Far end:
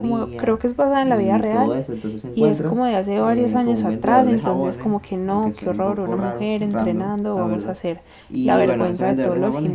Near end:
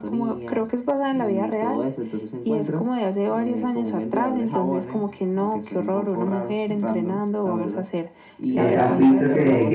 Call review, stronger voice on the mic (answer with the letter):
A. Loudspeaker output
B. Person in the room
B